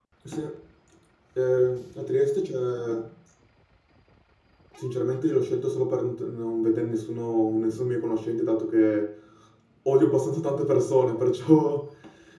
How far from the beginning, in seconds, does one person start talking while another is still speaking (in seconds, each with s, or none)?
none